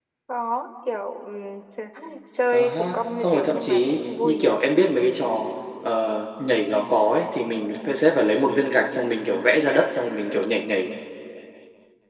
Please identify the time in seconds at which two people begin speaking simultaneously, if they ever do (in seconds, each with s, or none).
2.5 s